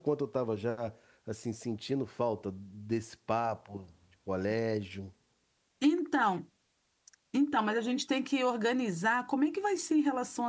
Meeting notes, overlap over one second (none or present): none